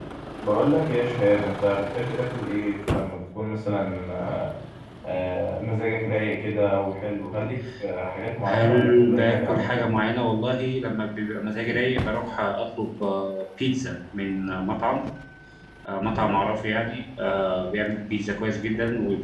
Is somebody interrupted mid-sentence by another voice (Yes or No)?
Yes